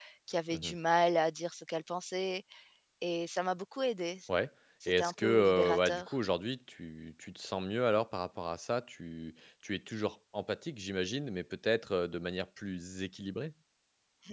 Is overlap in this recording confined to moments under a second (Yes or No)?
No